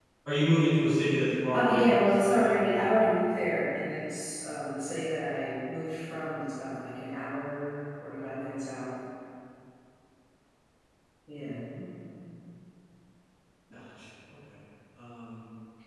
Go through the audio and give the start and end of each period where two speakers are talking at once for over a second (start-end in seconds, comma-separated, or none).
1.5-3.0